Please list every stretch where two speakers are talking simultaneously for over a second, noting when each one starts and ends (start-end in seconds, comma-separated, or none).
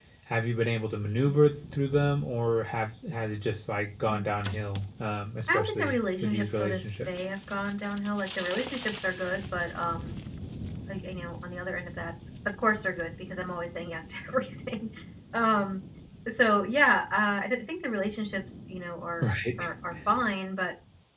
5.5-7.2